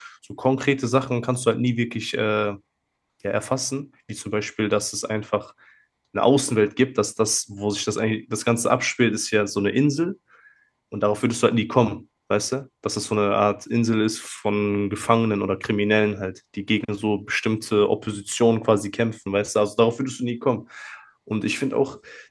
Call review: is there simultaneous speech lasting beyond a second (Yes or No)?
No